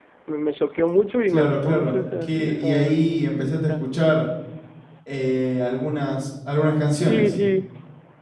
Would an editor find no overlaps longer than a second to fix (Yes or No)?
No